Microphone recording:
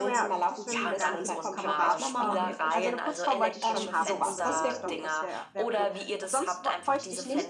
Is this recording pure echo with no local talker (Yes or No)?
No